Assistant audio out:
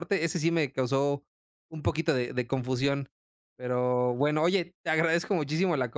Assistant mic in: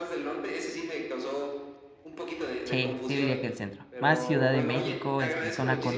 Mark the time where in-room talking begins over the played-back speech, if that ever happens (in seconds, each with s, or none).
2.6 s